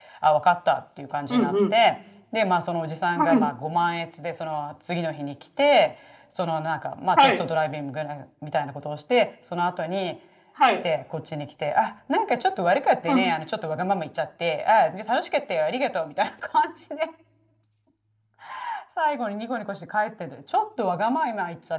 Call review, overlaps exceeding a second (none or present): none